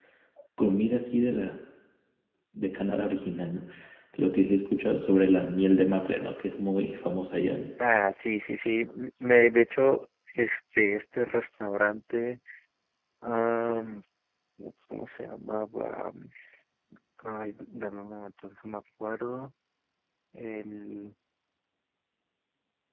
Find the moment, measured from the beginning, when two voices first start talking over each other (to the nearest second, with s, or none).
none